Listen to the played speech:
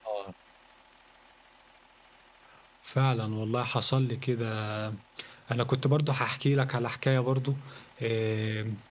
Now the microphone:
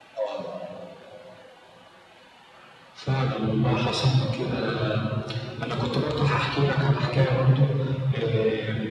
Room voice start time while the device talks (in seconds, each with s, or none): none